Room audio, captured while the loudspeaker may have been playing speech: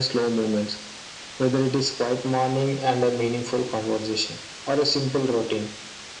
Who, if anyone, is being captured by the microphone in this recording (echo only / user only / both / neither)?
echo only